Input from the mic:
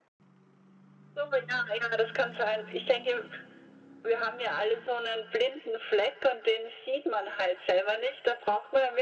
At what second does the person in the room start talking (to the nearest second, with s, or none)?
none